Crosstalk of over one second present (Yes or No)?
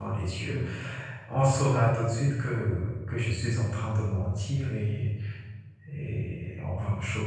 No